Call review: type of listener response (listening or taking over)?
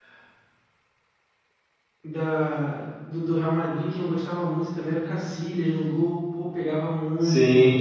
taking over